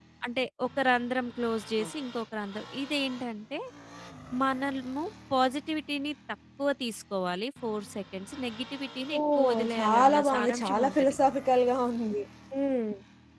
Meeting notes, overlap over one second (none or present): present